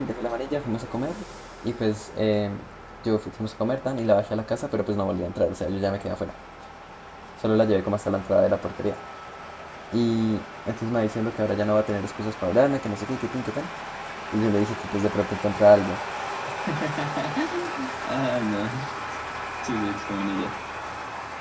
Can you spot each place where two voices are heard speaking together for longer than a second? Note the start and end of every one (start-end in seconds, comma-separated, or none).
none